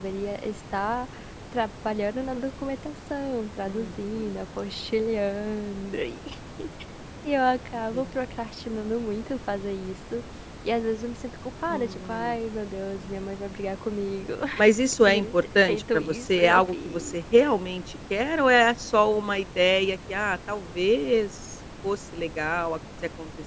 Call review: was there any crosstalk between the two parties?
Yes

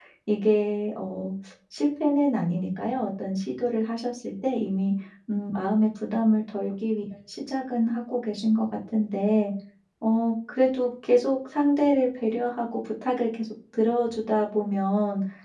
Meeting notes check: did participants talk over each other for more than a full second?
No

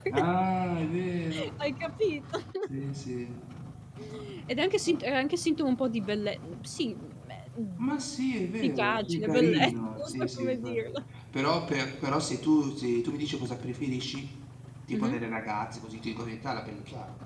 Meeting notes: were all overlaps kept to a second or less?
No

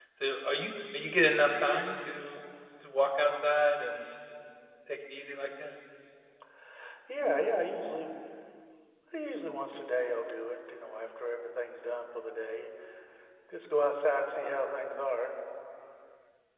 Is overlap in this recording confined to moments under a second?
Yes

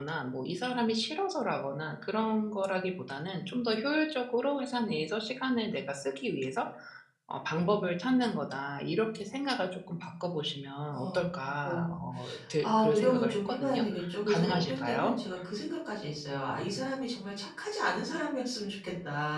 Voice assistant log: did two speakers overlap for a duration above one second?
Yes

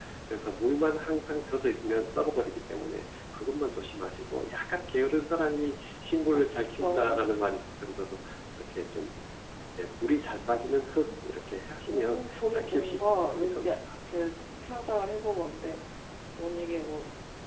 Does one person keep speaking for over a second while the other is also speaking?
Yes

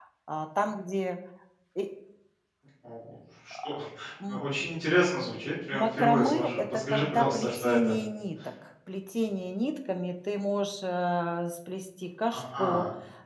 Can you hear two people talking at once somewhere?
Yes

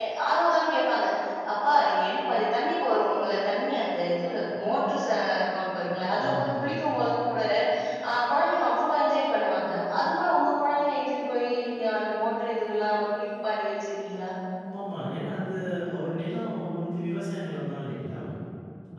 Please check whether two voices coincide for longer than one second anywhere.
No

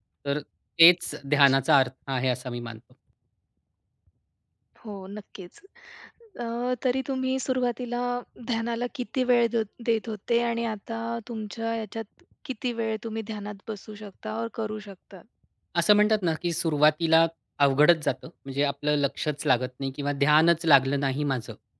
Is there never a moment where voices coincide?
Yes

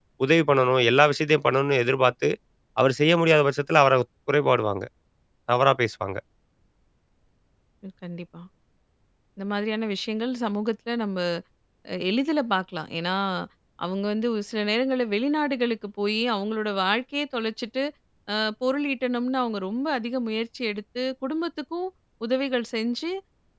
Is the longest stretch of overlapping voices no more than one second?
Yes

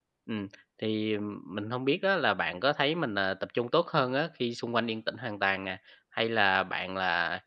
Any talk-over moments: No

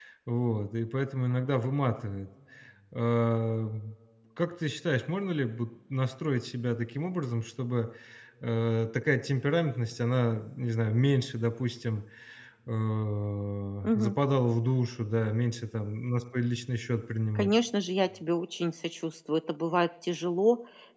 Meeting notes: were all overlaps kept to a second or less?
Yes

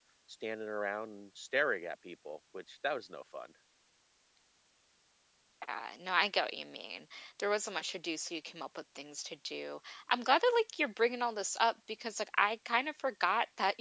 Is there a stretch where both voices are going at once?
No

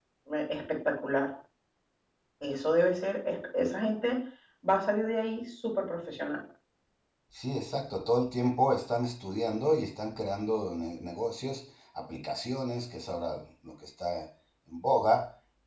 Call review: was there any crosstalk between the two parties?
No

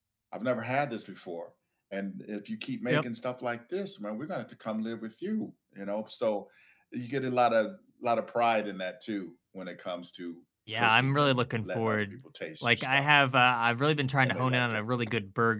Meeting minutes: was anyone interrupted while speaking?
Yes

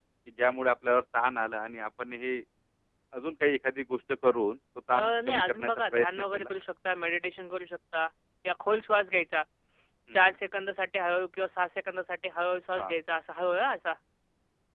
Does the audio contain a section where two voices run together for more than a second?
Yes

